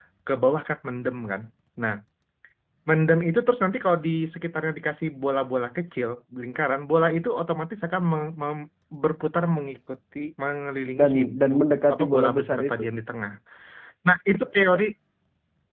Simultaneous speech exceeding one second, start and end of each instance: 11.0-12.8

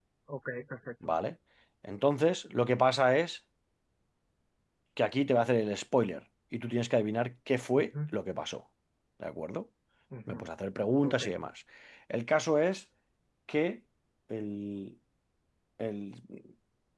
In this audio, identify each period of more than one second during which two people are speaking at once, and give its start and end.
none

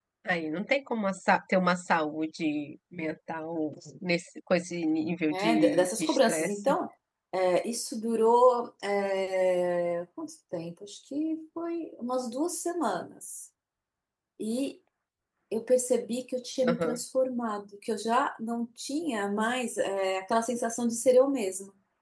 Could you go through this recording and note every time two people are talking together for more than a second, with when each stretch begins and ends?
5.3-6.7

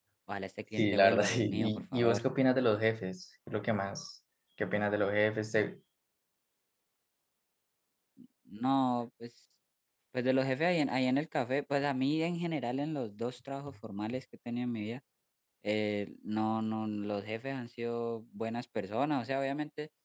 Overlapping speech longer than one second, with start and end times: 0.8-2.2

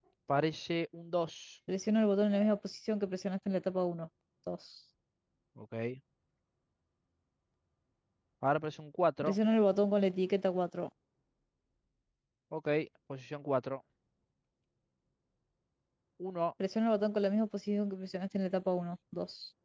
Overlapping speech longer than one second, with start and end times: none

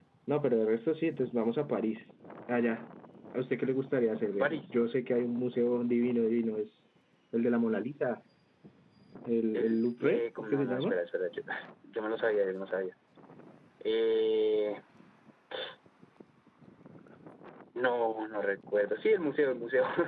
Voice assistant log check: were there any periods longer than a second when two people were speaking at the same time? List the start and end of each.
9.5-10.9

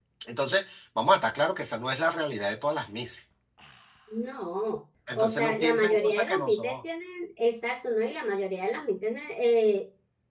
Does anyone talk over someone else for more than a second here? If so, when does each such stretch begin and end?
5.2-6.8

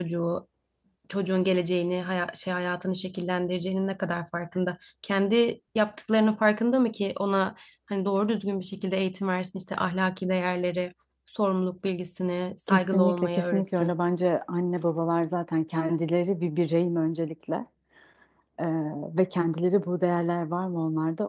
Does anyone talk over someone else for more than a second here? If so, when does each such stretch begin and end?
12.7-14.0

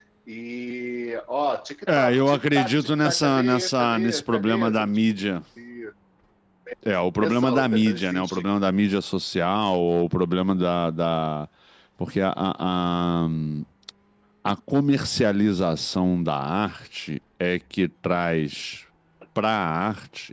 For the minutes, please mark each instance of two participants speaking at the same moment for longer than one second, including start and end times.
1.9-5.0, 7.2-8.4

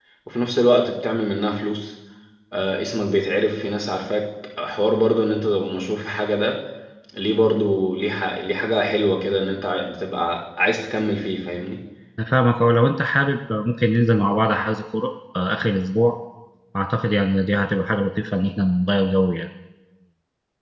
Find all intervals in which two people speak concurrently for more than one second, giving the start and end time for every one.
none

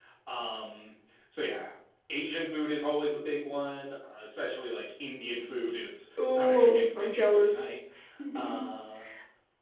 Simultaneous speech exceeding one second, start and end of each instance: 6.3-7.6

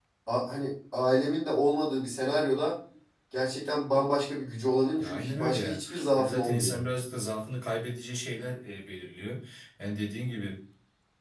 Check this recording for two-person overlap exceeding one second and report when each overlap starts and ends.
5.0-6.8

